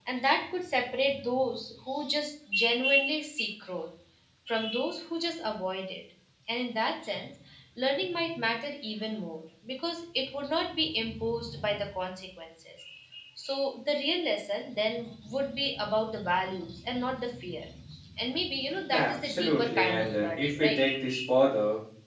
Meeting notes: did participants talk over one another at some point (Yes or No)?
Yes